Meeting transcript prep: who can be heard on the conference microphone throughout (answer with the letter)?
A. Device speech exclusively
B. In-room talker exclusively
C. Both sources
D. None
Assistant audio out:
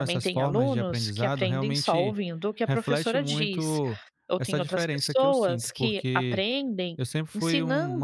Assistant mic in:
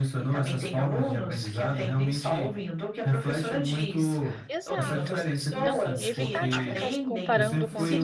C